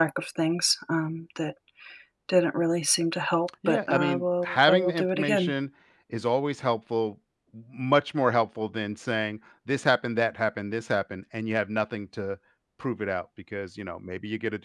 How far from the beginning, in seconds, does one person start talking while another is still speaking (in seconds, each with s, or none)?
3.6 s